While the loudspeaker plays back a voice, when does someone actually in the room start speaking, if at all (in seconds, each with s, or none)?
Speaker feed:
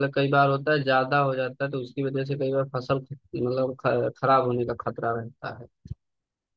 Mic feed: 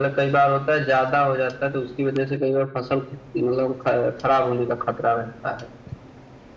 none